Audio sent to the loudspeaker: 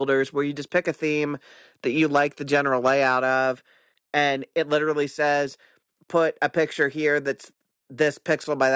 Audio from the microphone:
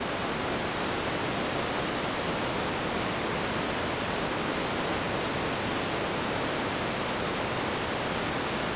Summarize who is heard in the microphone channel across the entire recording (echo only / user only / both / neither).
neither